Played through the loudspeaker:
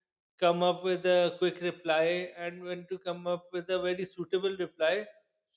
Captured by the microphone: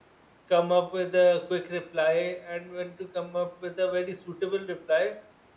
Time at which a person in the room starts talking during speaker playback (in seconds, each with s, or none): none